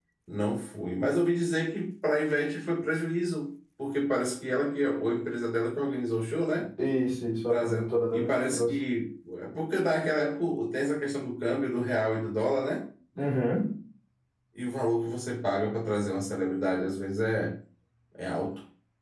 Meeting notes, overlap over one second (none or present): present